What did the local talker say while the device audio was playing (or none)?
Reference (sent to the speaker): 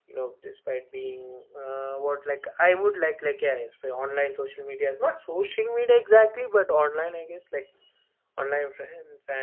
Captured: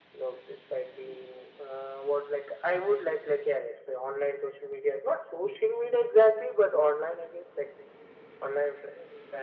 none